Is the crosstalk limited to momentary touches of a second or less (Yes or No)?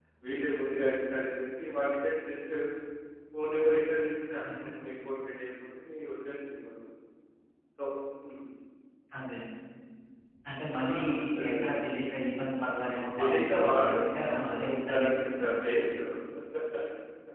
No